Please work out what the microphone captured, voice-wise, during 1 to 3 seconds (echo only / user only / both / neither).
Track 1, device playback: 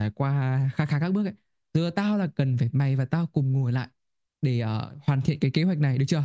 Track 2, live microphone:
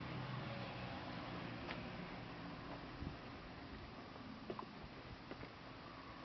neither